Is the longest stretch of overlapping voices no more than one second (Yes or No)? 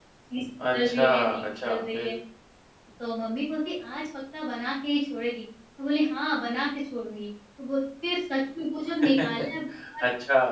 No